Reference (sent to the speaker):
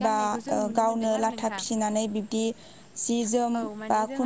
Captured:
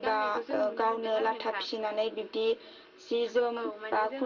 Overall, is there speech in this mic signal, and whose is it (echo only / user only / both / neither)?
echo only